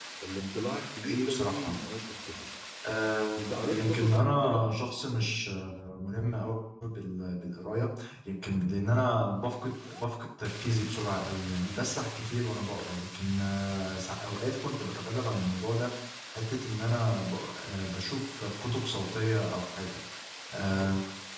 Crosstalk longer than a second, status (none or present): present